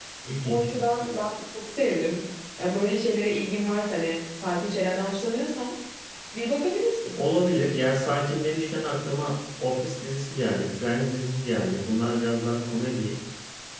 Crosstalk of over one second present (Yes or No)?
No